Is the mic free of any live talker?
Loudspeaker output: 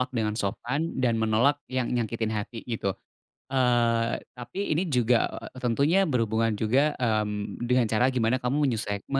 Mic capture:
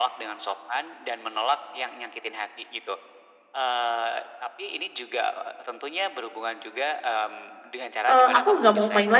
No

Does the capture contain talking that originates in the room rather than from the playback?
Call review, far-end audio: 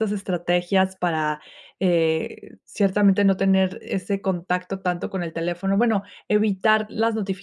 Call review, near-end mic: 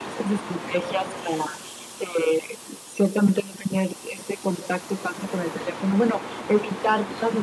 No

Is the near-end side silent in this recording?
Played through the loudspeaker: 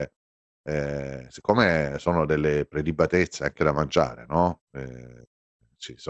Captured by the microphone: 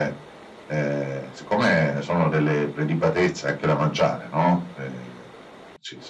Yes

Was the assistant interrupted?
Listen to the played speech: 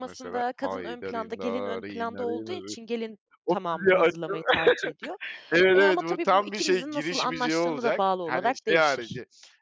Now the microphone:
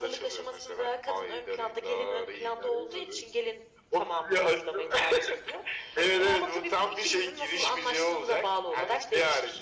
No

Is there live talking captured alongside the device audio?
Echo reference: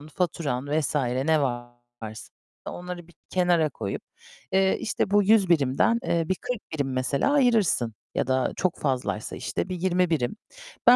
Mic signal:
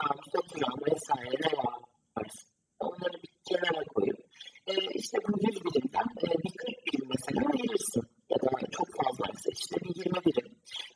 No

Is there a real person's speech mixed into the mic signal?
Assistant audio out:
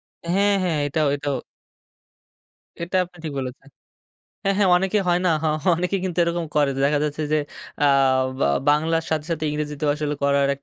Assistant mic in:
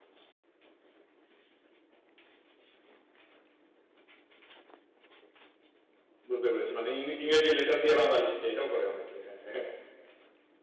Yes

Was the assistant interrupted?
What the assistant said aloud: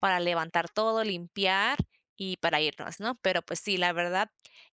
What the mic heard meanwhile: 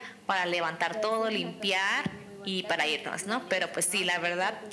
Yes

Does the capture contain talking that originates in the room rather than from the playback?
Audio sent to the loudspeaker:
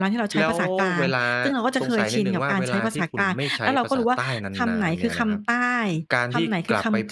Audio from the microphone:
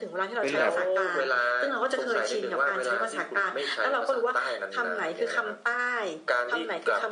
Yes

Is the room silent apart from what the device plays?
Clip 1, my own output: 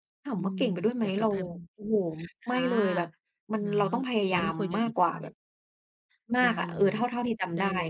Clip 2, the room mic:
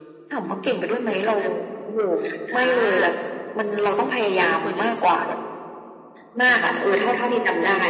Yes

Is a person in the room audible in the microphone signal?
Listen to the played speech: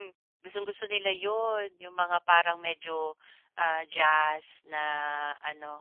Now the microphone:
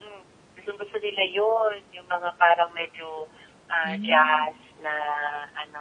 Yes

